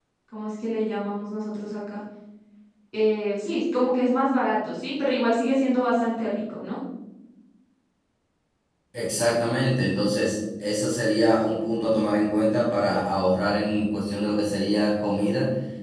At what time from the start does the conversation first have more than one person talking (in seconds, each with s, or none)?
none